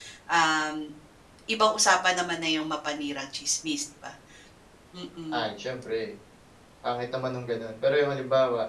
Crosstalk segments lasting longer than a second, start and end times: none

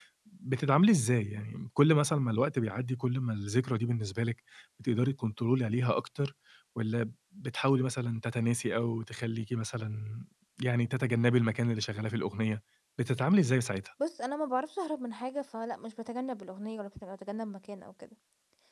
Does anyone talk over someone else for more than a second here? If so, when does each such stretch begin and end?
none

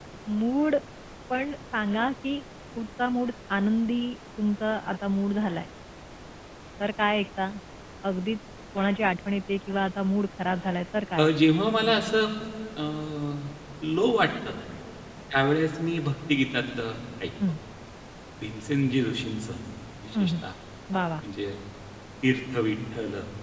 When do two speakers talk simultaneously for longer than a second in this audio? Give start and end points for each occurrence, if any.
none

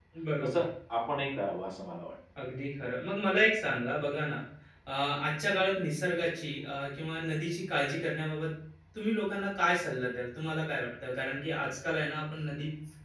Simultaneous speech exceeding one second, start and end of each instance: none

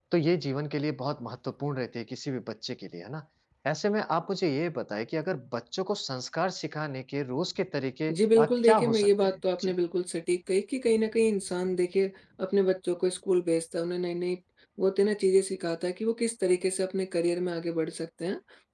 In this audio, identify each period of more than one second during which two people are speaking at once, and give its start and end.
8.1-9.7

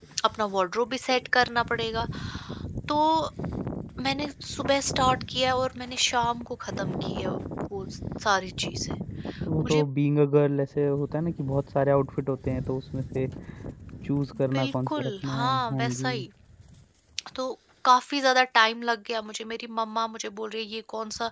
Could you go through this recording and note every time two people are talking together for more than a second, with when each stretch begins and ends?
14.6-16.1

